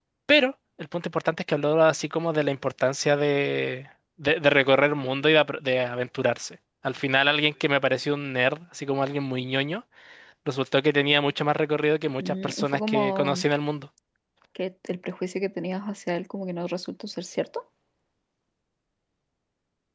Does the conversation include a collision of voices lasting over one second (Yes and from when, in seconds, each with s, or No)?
Yes, from 12.2 s